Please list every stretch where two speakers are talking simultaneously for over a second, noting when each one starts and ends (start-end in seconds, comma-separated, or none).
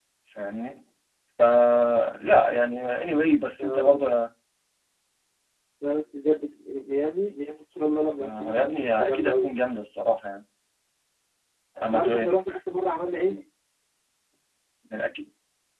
8.2-9.5